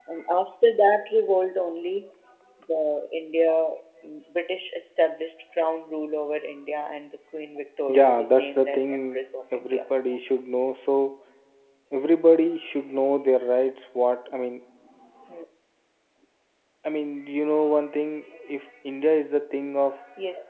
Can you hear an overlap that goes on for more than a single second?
Yes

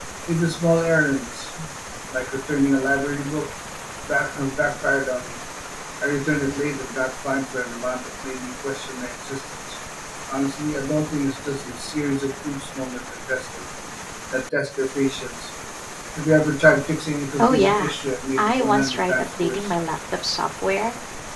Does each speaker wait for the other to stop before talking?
No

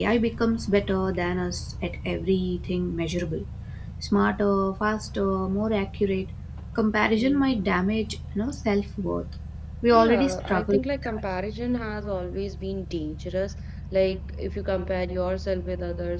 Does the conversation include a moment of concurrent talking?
Yes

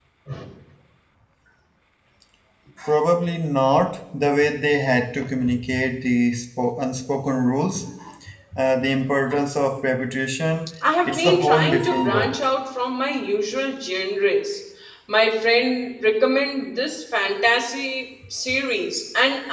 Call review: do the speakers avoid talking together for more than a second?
No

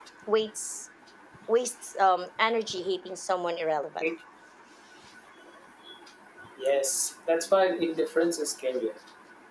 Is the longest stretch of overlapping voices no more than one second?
Yes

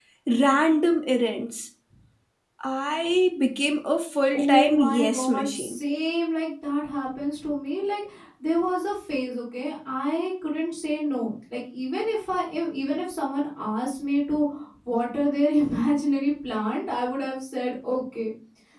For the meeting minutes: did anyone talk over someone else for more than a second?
Yes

